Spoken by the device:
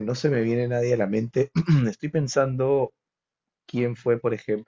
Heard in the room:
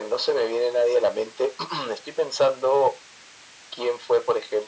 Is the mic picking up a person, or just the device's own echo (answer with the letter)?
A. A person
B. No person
B